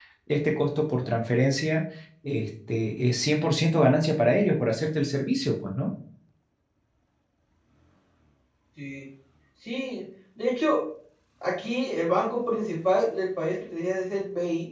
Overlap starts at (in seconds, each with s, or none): none